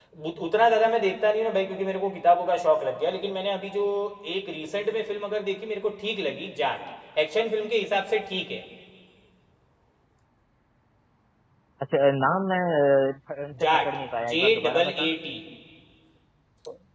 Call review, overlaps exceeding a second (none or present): present